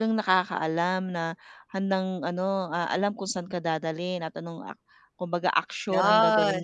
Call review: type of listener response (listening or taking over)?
listening